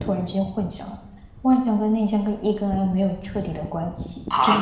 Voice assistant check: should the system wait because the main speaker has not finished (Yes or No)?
No